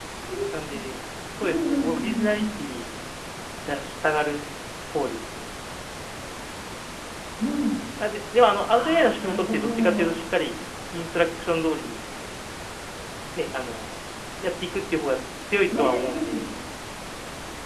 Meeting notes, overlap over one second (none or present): present